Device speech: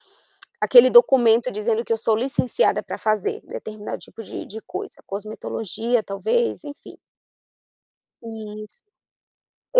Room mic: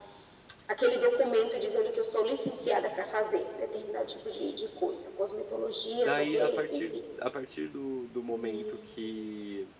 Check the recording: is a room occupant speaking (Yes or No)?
Yes